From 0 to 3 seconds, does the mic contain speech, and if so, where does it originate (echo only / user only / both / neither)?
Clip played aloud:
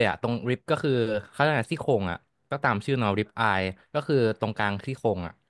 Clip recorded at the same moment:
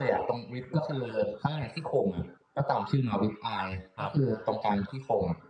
echo only